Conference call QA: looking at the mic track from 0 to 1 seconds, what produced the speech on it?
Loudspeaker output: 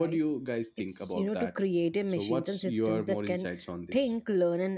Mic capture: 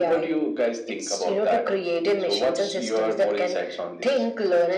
echo only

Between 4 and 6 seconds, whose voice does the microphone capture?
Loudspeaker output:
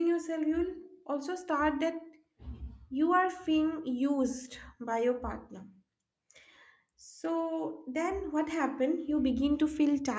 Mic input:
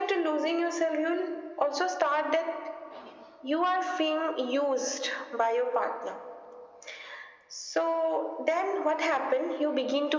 echo only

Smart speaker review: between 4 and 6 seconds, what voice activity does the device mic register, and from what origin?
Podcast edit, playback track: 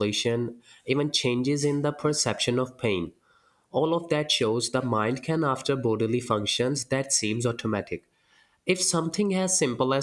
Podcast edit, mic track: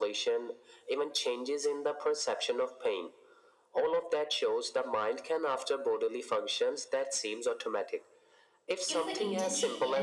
echo only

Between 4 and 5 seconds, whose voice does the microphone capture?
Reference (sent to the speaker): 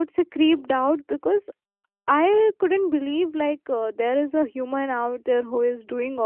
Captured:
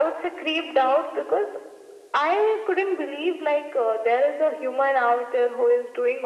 echo only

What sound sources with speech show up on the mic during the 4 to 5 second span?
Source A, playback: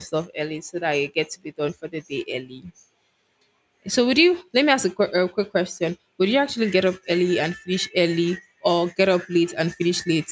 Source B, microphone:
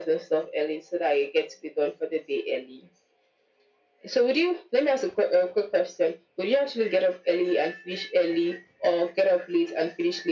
echo only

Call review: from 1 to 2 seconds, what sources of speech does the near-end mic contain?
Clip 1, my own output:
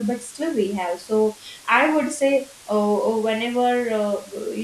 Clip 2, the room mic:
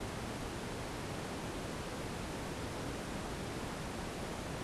neither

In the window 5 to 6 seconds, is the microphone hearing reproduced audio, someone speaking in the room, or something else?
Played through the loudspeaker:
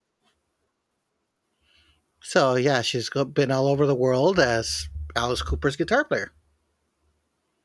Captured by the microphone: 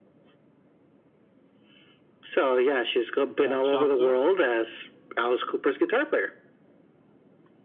echo only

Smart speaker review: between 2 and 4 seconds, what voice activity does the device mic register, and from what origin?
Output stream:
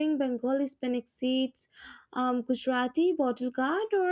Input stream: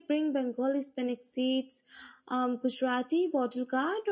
echo only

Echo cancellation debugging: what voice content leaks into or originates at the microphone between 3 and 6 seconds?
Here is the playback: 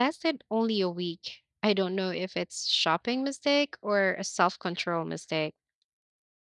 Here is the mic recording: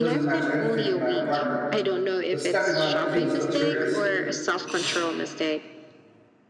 both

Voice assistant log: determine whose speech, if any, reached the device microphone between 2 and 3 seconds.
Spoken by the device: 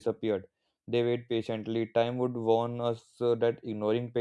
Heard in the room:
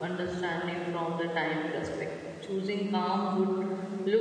user only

